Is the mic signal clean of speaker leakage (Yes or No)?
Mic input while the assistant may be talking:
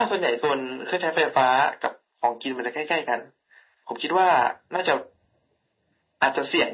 No